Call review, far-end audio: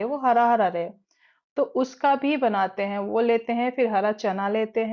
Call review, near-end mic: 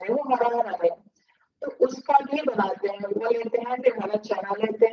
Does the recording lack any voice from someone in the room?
Yes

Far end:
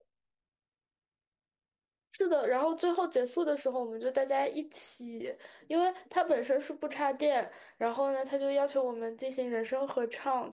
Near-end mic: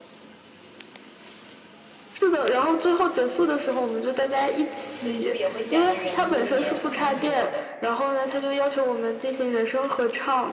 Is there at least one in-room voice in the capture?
Yes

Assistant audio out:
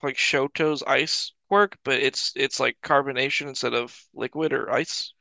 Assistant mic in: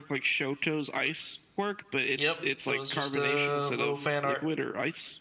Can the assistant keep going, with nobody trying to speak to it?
No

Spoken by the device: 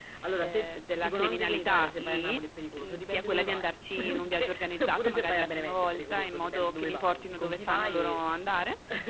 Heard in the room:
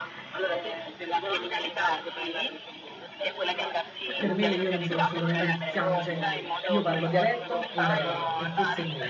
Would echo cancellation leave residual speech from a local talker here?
Yes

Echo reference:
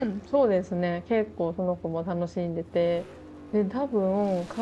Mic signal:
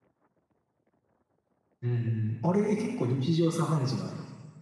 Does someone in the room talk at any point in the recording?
Yes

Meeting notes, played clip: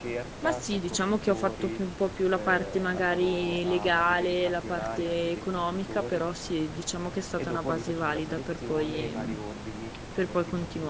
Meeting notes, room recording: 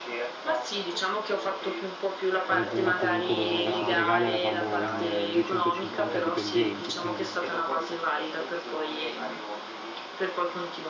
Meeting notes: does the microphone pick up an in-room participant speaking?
Yes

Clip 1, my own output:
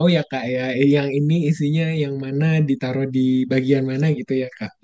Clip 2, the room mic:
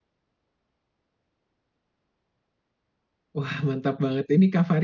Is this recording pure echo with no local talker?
No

